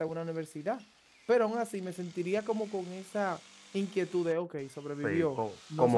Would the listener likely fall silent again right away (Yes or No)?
No